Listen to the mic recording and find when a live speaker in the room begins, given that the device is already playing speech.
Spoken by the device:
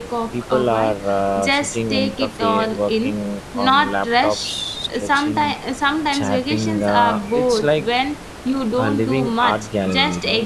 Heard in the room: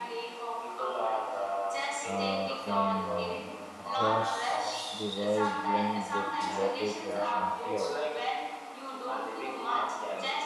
2.0 s

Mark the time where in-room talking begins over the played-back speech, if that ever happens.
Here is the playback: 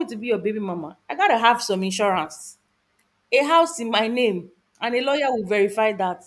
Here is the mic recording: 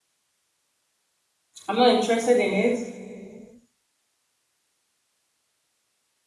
1.7 s

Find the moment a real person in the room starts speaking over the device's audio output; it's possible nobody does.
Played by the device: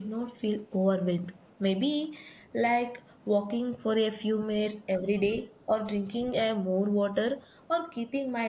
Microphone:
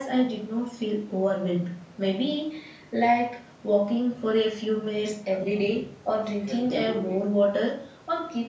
6.4 s

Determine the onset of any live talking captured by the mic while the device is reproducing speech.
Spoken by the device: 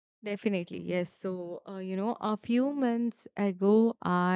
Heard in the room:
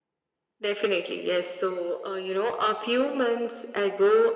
none

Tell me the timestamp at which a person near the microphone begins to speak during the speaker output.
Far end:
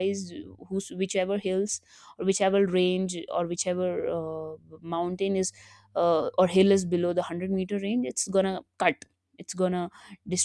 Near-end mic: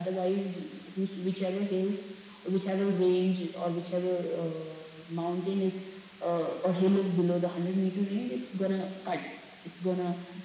none

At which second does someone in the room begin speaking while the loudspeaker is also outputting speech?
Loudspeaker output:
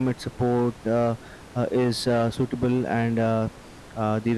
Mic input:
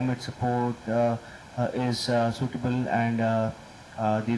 none

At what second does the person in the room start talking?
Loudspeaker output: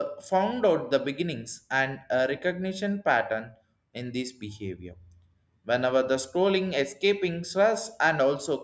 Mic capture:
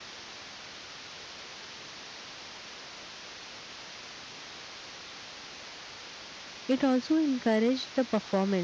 6.7 s

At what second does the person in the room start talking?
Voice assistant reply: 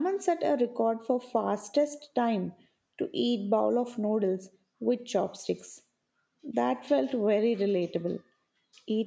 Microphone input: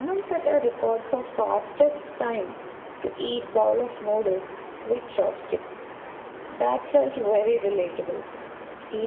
none

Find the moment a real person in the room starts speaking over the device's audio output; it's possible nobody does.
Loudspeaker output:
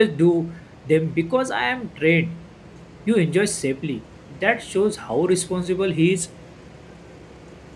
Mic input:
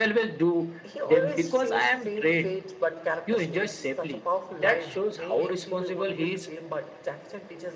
0.8 s

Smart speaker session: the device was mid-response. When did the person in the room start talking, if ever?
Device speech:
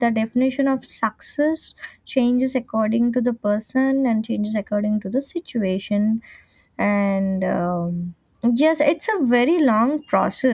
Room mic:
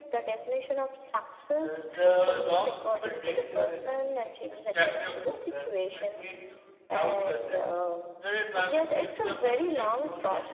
1.5 s

